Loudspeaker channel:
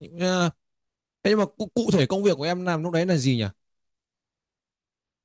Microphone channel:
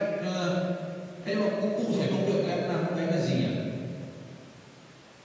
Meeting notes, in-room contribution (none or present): none